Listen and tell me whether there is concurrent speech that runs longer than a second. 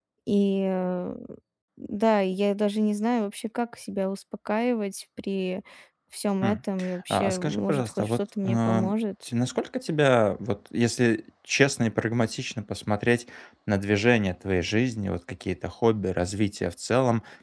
Yes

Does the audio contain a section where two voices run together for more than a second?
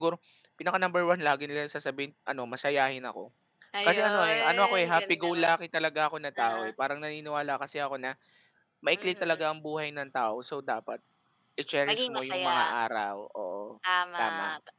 Yes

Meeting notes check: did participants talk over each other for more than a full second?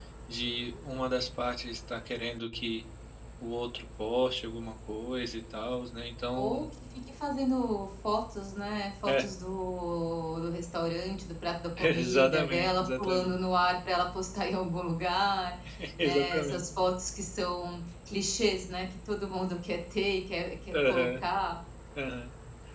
Yes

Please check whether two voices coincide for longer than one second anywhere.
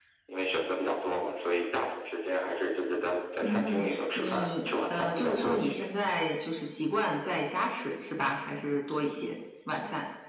Yes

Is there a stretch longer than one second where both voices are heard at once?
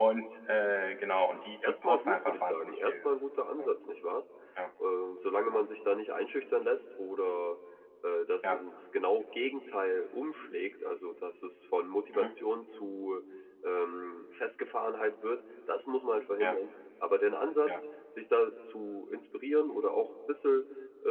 Yes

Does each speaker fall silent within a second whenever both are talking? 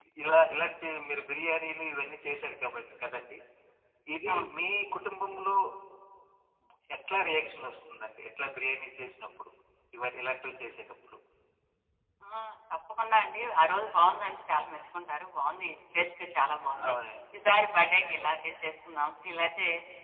Yes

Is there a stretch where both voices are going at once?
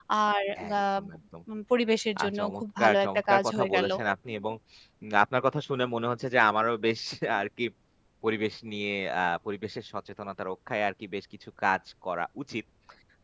Yes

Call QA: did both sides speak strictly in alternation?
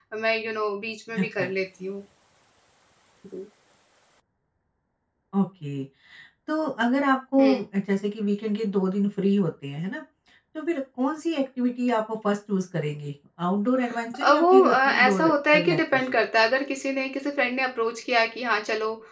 No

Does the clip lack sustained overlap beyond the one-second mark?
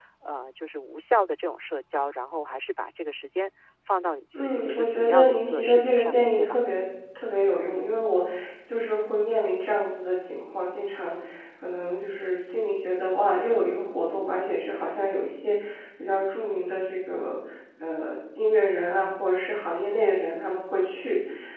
No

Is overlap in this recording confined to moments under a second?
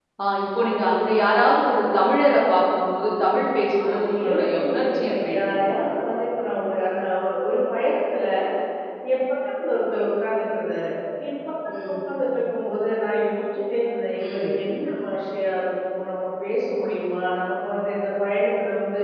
No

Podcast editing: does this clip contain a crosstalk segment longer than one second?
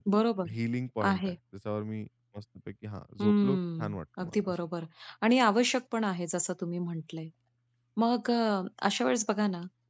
Yes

